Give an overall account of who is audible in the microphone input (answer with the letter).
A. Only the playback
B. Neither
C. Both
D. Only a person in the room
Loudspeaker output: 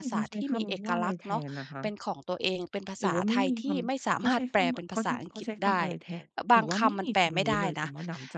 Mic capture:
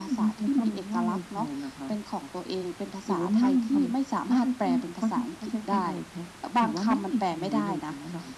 A